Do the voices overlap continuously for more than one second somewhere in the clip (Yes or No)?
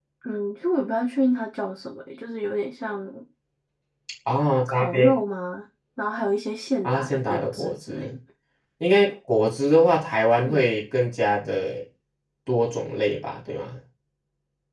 Yes